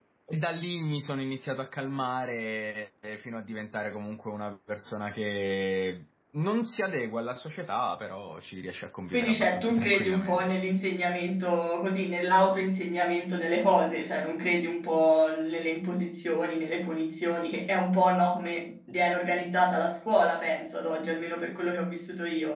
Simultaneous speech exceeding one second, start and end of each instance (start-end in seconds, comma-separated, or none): 9.1-10.5